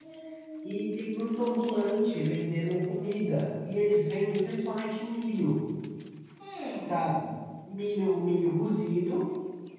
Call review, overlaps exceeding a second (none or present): none